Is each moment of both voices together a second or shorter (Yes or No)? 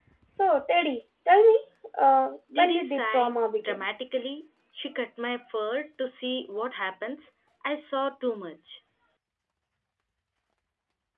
No